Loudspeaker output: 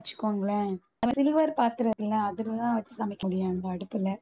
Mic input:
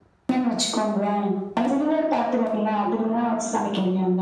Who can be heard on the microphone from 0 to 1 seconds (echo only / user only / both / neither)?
echo only